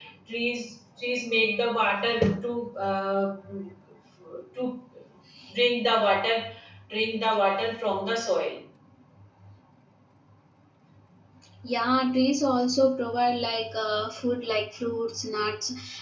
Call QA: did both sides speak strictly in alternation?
Yes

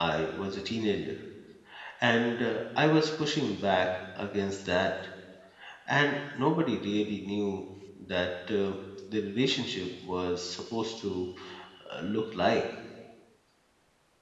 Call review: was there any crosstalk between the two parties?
No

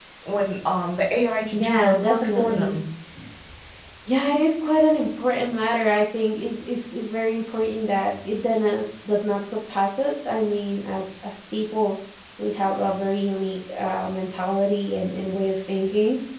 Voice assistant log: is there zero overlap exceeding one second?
No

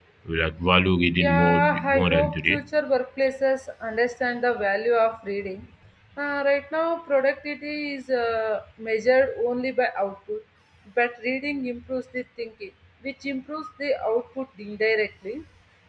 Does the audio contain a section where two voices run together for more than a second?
Yes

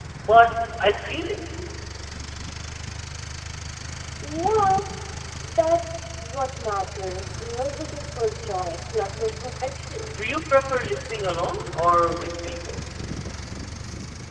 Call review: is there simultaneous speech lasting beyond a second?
No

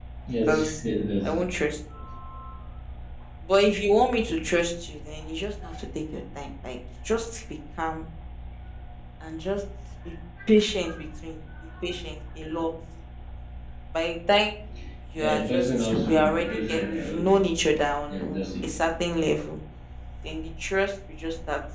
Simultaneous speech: Yes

